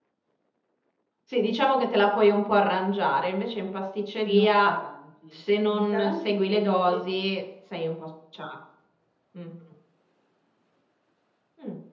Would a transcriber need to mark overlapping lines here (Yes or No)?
Yes